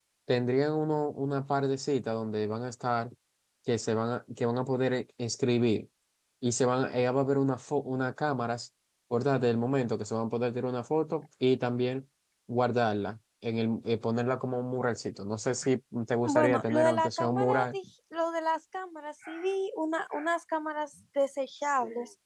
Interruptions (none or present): present